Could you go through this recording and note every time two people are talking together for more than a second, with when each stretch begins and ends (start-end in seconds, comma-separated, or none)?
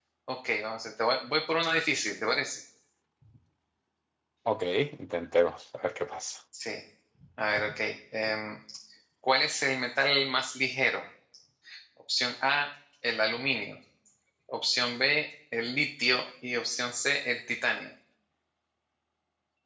none